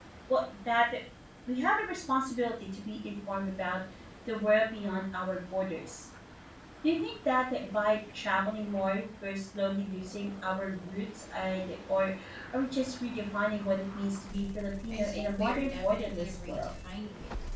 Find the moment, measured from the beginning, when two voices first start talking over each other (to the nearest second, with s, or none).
15 s